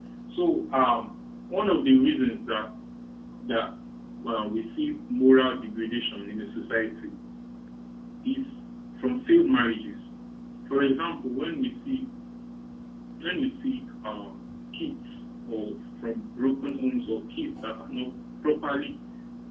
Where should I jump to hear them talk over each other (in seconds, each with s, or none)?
none